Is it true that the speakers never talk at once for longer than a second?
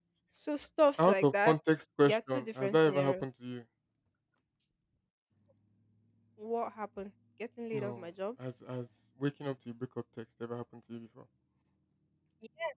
No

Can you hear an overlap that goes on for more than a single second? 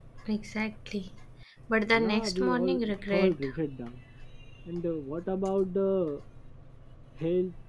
Yes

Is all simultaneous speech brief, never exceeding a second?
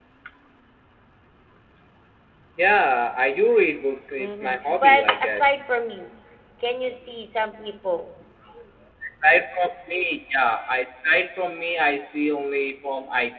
No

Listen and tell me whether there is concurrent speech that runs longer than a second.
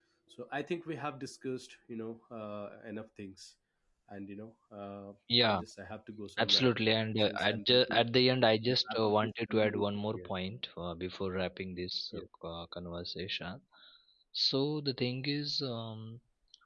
Yes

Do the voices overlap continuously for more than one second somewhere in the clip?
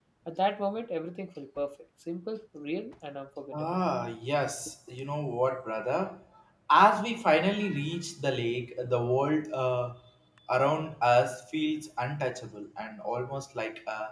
No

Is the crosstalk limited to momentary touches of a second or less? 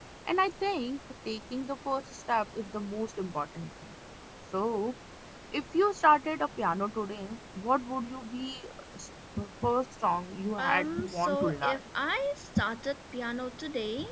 No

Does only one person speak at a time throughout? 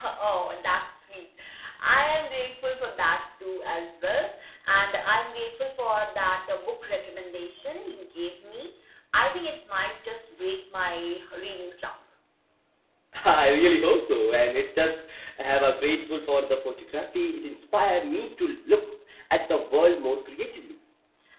Yes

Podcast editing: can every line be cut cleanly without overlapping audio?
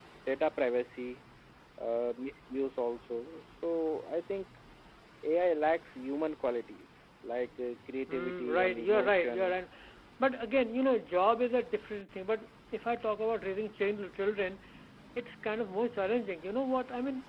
No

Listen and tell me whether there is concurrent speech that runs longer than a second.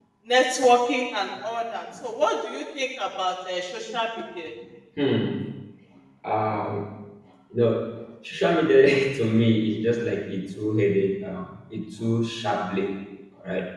No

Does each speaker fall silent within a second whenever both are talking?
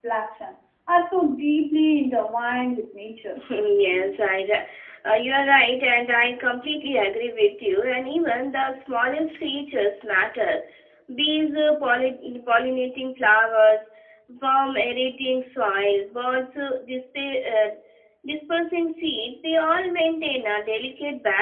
Yes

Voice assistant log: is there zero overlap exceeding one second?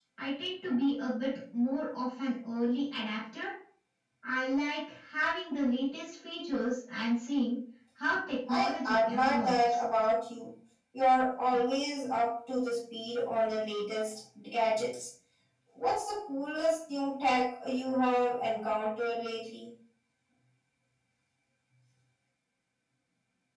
No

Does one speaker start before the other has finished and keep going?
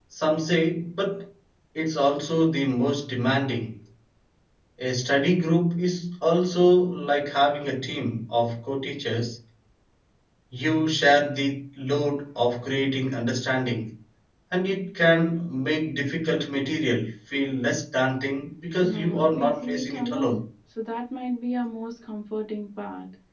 Yes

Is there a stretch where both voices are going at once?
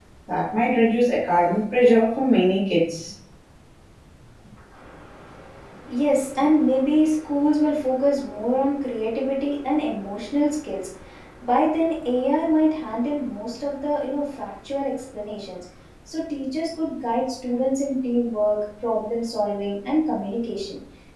No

